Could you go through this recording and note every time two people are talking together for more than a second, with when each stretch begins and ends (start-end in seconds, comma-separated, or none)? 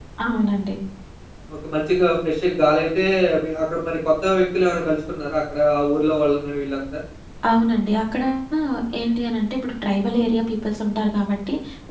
none